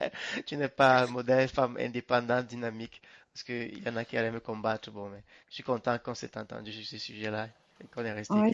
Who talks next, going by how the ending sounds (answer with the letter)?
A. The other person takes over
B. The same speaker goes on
A